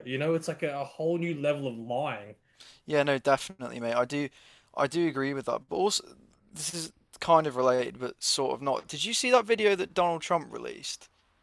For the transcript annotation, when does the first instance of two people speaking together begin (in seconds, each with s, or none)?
none